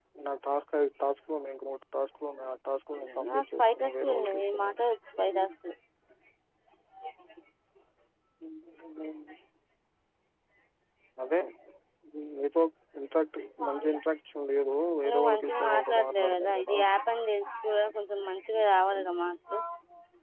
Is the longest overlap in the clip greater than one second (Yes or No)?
Yes